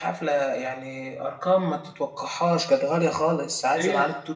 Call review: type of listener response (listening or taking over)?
listening